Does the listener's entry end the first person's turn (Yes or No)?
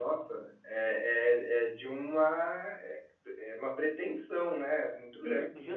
Yes